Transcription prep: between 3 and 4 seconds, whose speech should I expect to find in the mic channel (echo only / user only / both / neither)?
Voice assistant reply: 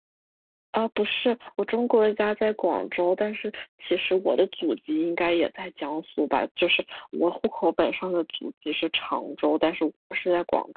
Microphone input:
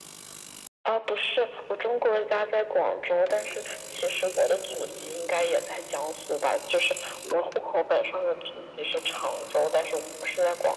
echo only